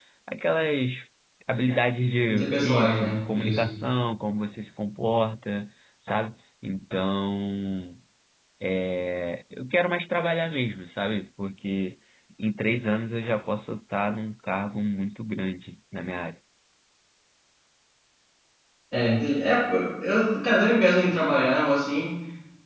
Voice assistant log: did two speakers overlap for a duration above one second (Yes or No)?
Yes